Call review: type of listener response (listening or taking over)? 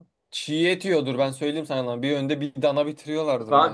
taking over